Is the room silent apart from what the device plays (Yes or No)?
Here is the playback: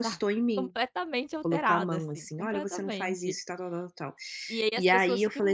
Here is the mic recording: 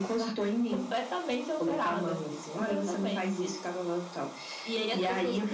Yes